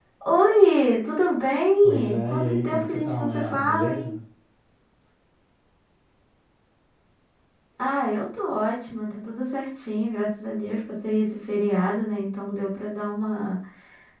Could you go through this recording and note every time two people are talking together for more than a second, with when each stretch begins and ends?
1.8-4.1

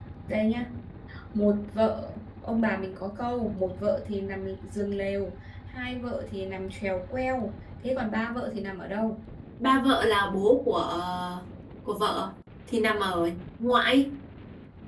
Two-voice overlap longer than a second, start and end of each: none

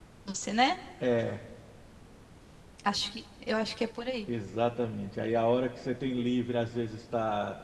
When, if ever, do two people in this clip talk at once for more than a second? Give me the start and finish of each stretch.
none

